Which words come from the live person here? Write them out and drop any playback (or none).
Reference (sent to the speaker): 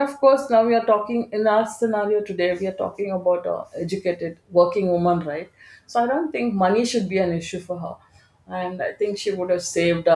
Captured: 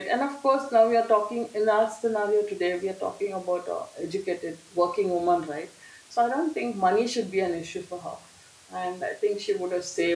none